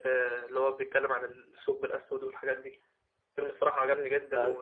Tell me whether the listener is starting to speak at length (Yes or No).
No